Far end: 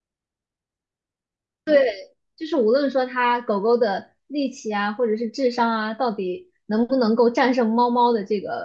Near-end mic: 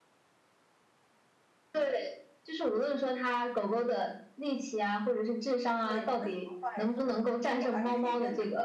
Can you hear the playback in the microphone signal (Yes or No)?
Yes